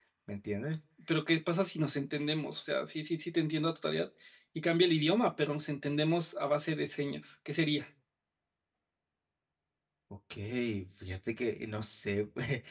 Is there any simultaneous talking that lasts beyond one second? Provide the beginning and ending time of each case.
none

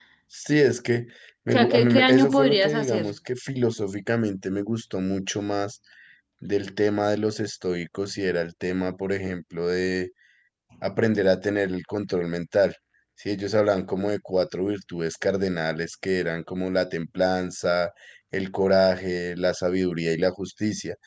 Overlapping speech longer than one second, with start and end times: 1.5-3.1

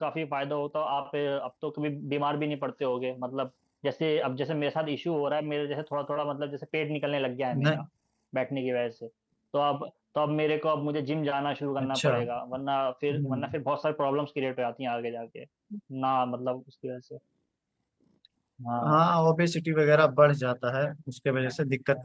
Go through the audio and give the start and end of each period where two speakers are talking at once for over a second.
none

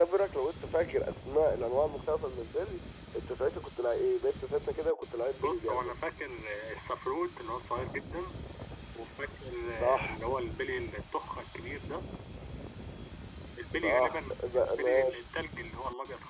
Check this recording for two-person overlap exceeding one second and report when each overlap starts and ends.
13.8-15.2

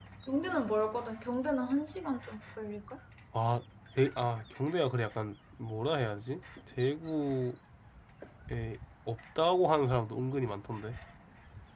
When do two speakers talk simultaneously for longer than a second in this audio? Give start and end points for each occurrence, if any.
none

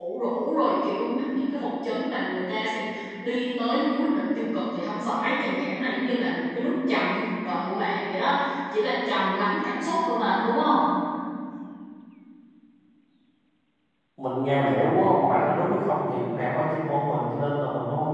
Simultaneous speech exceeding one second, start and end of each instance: none

